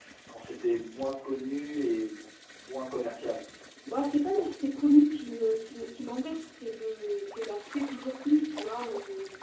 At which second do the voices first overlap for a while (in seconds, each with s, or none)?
none